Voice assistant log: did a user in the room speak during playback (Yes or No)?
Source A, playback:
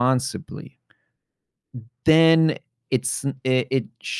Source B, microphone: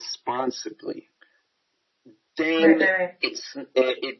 Yes